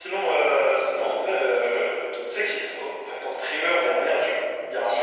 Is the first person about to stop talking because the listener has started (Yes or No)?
Yes